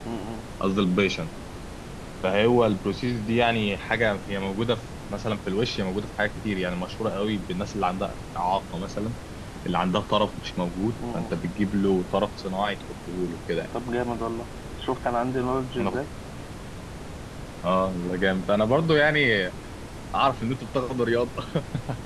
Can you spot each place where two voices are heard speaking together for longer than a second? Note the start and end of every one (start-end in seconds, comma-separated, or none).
none